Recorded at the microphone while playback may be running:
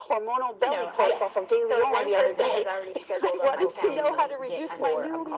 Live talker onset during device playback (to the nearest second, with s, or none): 1 s